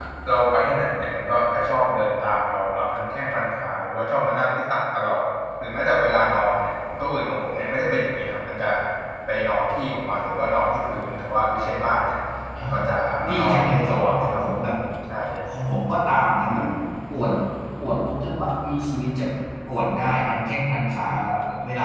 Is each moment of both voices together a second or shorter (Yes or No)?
No